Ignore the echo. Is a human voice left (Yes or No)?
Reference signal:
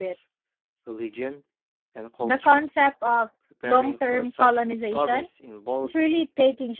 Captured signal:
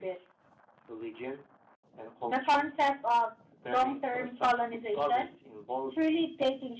No